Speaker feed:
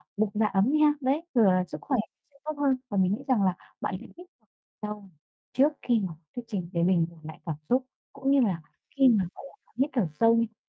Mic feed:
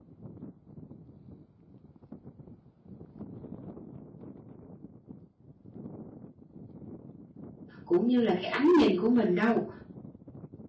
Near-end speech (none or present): present